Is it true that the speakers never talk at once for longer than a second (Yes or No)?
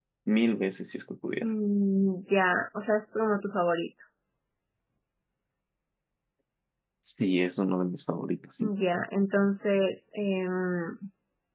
Yes